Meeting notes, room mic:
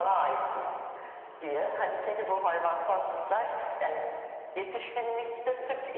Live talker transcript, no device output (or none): none